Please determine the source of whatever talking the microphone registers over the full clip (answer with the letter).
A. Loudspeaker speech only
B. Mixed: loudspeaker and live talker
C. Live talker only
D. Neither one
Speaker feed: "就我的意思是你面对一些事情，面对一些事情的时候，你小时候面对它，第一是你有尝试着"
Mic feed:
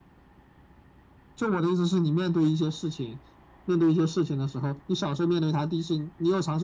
A